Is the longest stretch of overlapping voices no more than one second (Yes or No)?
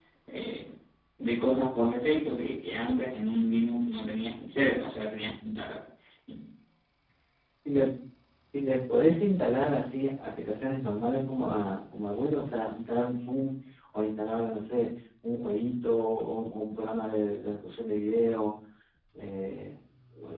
Yes